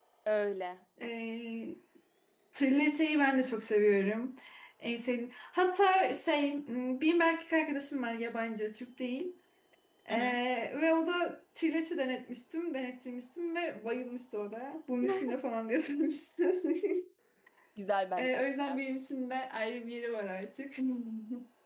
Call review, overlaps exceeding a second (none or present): none